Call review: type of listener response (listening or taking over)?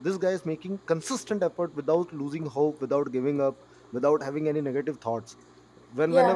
listening